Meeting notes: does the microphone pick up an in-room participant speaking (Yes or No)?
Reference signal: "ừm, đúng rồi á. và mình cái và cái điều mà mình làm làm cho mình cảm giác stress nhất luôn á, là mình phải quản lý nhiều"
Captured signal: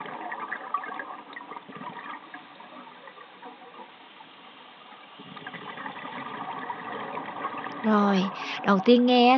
Yes